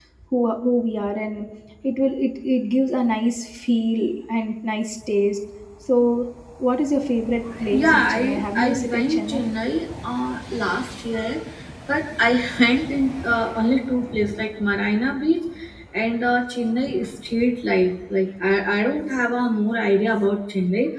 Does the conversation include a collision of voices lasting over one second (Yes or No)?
Yes